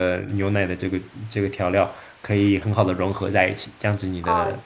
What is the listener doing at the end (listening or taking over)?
taking over